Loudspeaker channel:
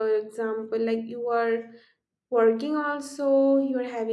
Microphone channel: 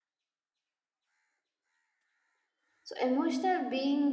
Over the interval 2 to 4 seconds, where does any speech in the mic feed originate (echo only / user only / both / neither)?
user only